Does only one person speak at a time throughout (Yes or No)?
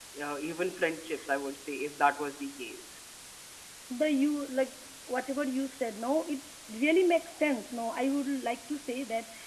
Yes